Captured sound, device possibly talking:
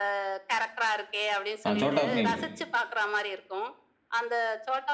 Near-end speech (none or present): present